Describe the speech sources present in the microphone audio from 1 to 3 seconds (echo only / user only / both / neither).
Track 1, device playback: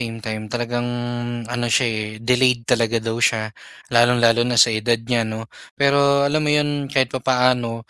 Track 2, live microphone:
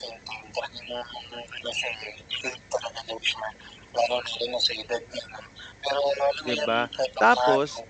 echo only